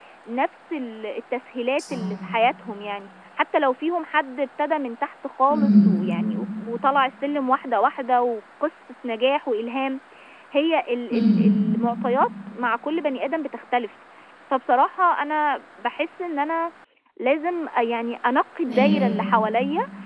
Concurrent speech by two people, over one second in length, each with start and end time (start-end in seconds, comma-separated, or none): none